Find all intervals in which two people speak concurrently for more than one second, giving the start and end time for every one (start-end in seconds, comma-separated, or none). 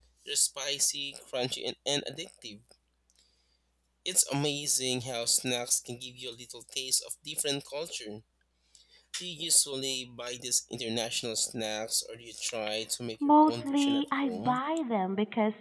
13.2-14.6